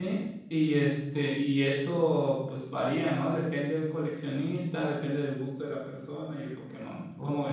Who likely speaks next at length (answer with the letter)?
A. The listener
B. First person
A